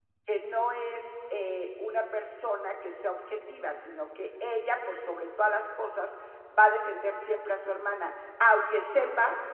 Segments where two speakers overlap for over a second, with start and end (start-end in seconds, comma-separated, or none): none